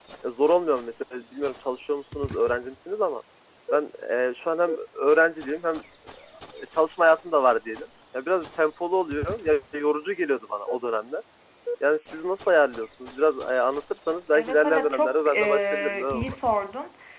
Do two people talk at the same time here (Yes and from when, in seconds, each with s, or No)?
Yes, from 14.3 s